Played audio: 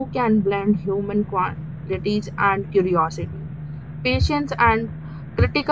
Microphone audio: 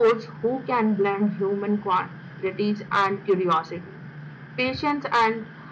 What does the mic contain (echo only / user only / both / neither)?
echo only